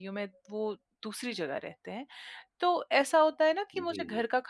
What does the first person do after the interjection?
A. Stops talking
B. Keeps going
B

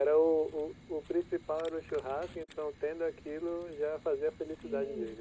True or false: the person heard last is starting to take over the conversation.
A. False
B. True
B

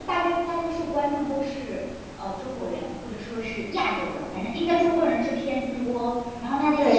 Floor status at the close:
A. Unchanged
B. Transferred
B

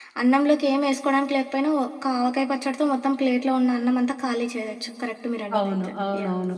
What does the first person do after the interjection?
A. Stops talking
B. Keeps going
A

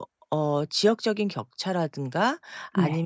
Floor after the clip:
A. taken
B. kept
B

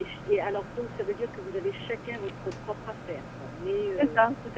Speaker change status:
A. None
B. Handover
B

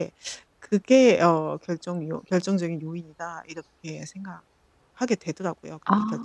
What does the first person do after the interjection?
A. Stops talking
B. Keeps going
A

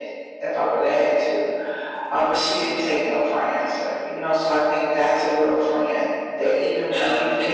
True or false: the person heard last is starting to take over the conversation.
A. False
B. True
B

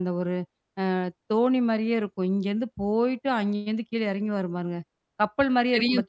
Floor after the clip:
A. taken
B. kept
A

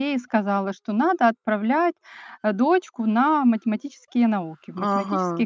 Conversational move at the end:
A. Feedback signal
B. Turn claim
B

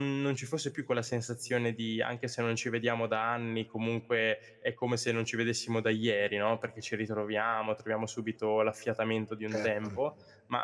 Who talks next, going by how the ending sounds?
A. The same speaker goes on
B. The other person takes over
A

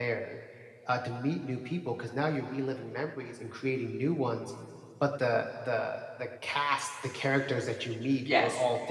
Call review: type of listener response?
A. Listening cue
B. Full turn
A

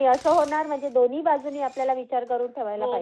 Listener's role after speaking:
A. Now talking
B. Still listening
A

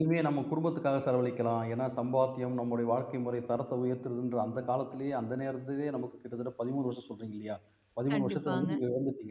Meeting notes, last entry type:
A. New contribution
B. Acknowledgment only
B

